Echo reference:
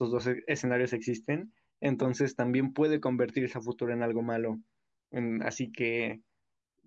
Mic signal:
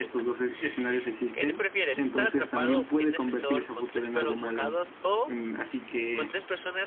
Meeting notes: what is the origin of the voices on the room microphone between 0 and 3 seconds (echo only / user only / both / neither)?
both